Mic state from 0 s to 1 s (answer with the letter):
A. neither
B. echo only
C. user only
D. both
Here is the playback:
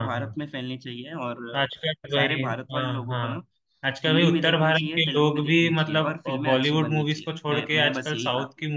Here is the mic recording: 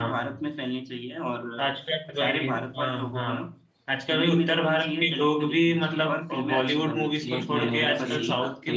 B